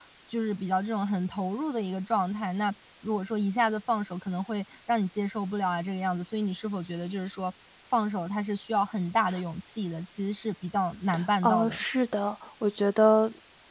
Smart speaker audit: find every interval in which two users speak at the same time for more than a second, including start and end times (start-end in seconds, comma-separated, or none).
none